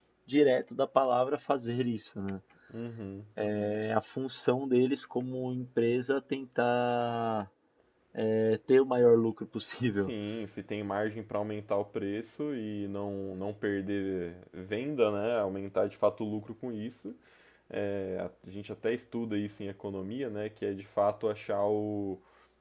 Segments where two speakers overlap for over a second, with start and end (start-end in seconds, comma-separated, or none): none